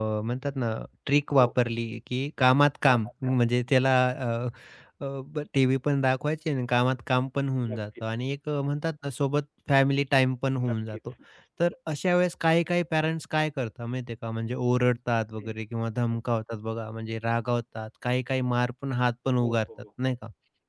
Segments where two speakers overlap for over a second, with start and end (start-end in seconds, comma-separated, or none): none